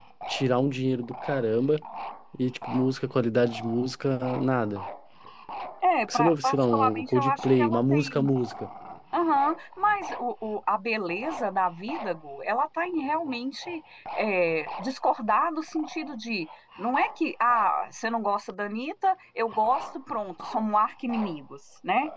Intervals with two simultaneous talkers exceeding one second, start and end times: 6.1-8.3

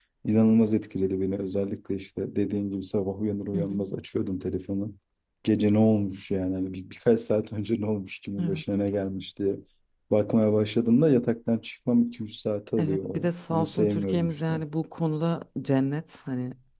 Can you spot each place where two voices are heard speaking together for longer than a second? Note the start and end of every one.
12.8-14.5

